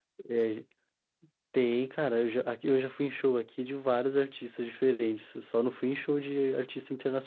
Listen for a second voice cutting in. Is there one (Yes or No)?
No